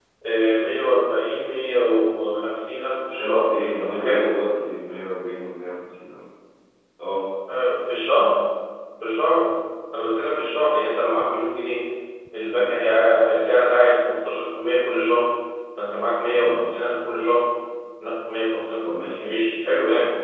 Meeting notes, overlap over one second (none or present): present